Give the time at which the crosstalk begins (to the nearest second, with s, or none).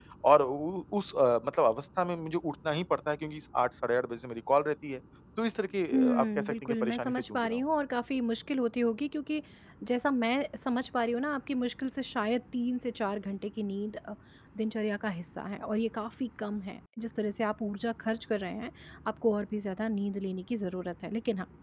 6 s